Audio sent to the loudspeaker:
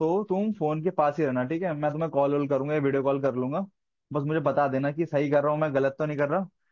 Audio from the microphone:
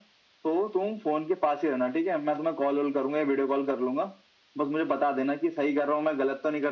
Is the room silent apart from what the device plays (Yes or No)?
Yes